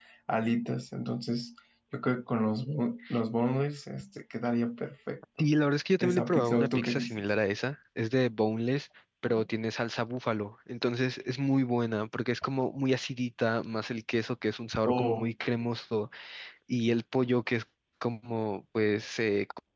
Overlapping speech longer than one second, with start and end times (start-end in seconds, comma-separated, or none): 6.0-7.2